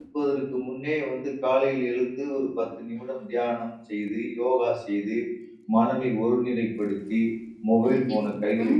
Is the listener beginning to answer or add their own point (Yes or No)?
Yes